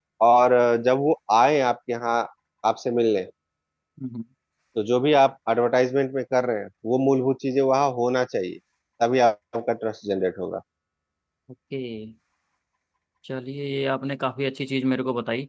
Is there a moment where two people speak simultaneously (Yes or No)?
No